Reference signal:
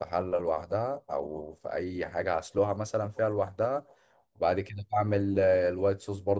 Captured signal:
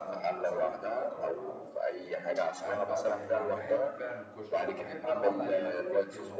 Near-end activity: present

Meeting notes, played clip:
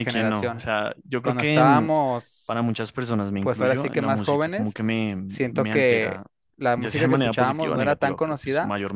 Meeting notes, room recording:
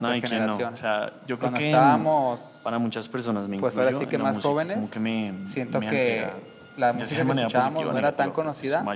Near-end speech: none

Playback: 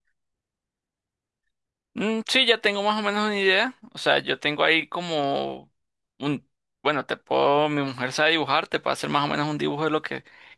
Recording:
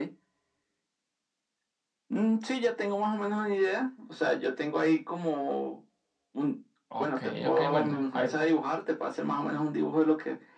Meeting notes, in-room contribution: present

